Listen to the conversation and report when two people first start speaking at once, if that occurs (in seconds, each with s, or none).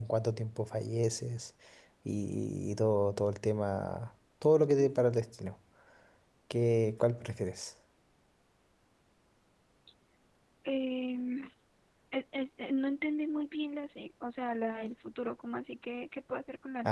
none